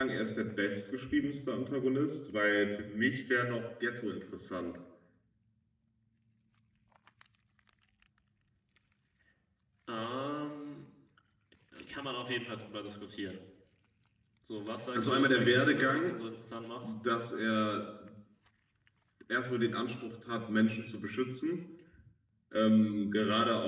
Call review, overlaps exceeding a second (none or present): present